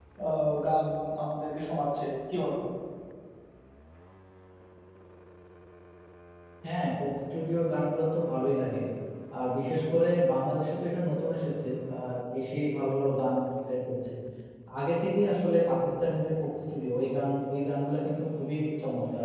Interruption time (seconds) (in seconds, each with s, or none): none